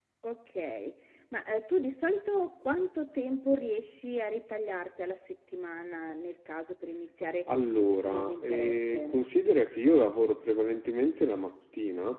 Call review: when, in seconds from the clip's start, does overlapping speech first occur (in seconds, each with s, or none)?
7.9 s